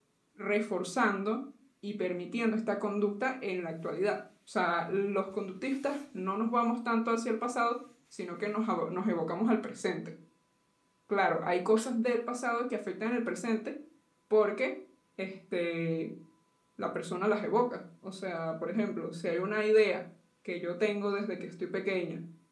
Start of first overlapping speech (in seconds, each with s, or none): none